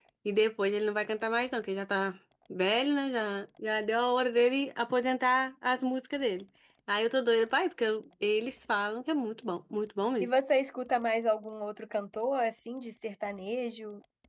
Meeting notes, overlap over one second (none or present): none